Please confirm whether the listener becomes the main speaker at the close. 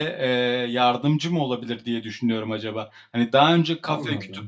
No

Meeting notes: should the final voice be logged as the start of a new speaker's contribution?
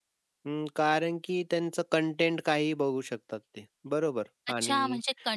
Yes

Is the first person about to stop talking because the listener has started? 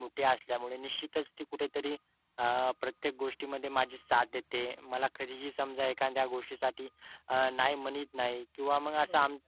No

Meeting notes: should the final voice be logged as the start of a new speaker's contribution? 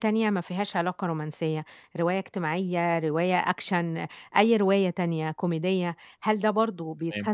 No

